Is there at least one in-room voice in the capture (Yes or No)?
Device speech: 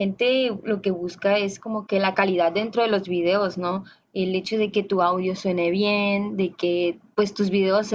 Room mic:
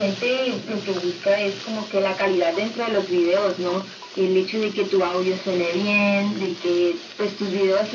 No